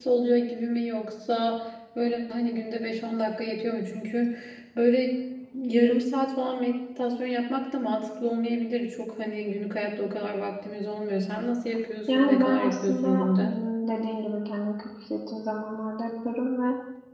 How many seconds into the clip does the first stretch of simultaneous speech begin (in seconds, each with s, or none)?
12.1 s